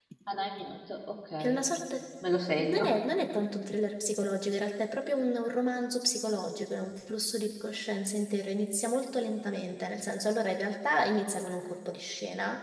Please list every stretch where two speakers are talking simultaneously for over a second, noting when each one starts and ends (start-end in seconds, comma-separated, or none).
none